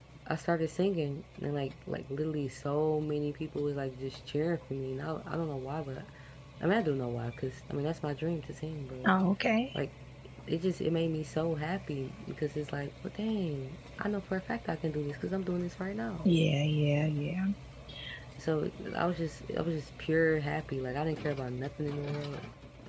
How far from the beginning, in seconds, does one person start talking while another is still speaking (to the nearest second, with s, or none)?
none